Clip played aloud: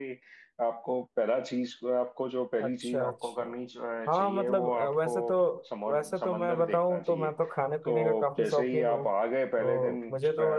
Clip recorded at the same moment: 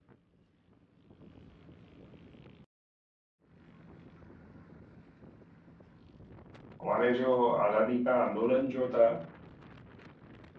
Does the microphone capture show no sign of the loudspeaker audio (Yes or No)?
Yes